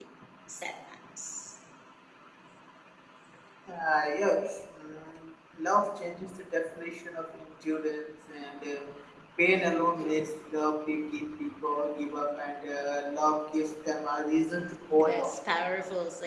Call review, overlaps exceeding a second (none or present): none